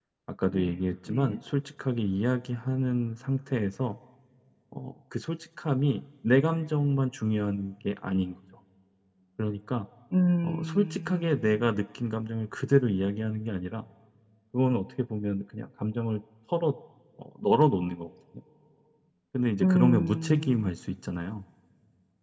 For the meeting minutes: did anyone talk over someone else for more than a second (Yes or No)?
Yes